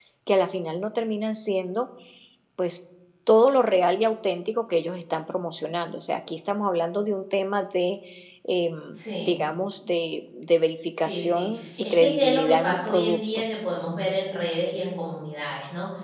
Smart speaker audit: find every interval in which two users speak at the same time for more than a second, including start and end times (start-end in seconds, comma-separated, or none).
11.0-13.4